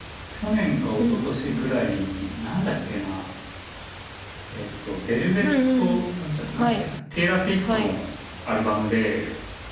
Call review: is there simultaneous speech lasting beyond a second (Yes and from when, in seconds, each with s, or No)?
No